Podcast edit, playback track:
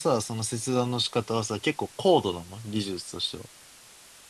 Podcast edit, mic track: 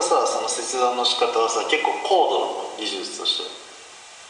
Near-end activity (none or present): none